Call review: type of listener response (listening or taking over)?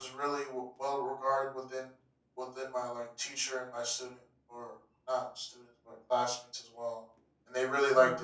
listening